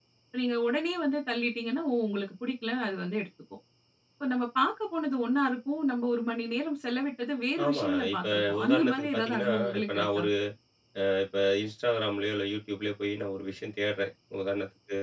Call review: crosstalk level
present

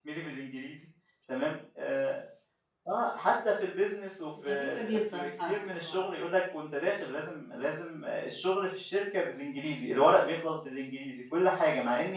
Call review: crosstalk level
present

